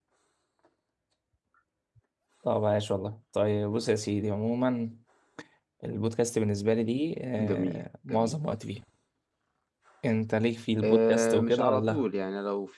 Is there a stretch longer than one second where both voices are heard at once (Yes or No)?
Yes